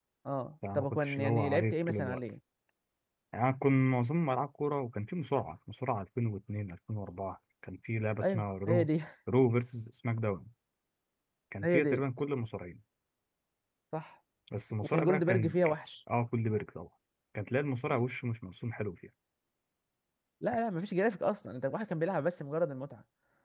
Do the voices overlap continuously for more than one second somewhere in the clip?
Yes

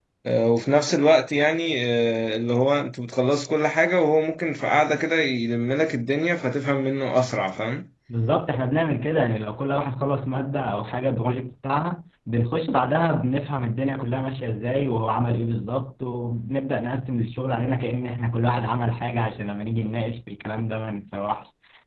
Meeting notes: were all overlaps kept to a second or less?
Yes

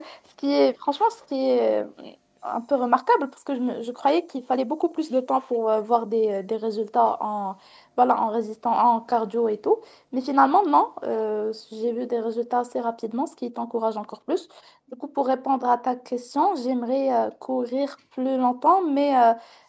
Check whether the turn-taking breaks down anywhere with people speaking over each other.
No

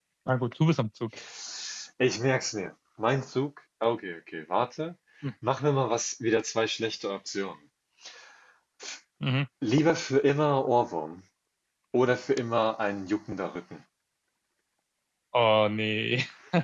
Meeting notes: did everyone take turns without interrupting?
Yes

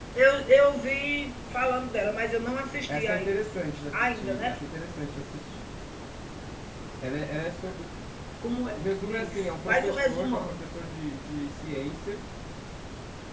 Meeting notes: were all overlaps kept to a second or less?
No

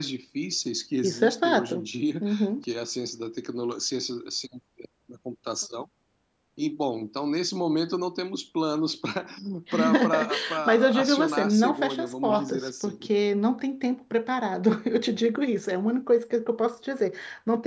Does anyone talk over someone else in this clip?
Yes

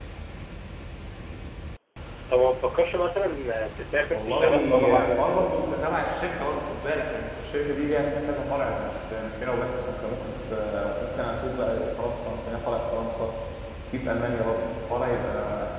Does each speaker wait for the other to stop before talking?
No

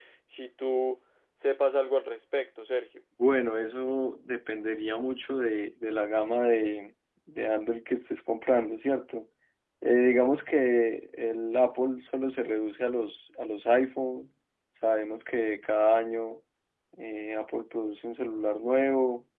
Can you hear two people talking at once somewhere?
No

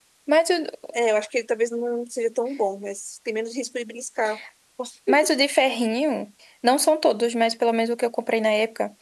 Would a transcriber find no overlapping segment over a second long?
Yes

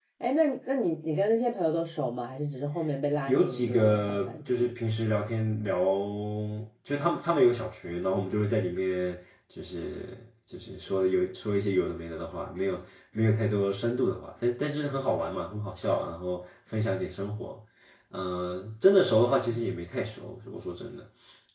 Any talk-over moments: Yes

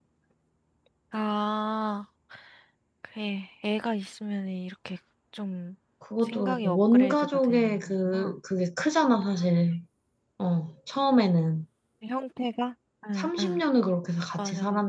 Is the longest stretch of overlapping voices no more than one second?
No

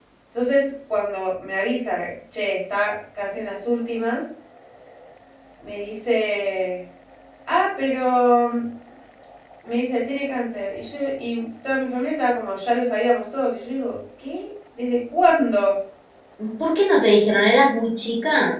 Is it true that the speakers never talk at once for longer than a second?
Yes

